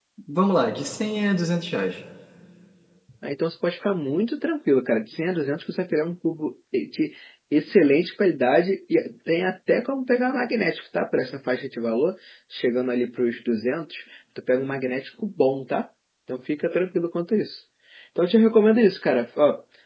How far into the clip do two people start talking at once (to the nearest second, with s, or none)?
none